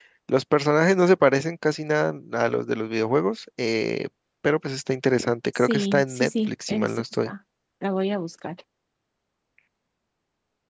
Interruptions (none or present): present